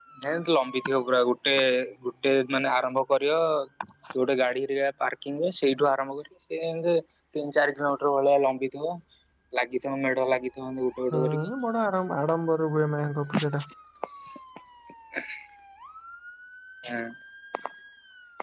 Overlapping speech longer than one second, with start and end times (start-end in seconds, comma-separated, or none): none